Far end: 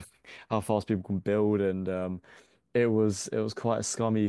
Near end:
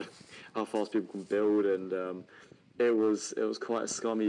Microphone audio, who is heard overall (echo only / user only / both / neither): echo only